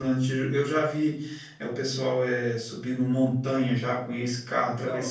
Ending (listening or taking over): listening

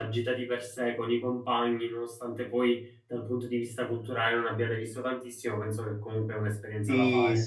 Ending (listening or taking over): taking over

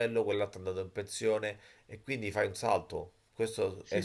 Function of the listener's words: taking over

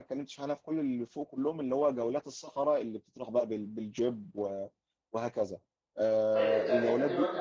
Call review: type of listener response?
taking over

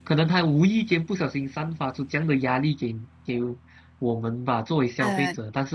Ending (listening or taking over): listening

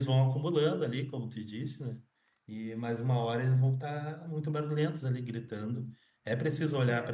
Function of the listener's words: listening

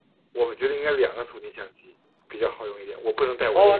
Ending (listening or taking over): taking over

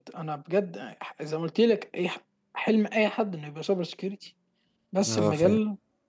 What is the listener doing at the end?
listening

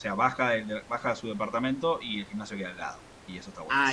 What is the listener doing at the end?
taking over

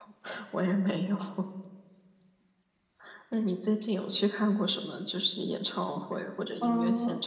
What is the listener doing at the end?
taking over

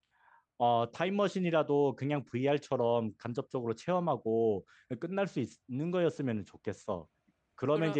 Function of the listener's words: listening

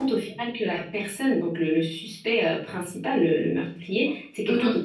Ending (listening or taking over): listening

